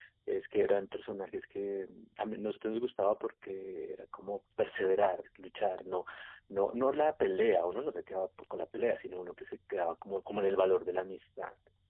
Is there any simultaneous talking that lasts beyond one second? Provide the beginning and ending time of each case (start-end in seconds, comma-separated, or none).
none